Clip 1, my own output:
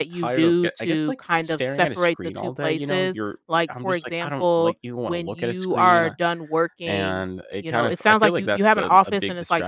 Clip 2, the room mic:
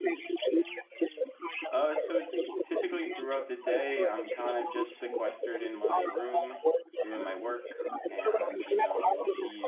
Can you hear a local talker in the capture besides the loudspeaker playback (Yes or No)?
Yes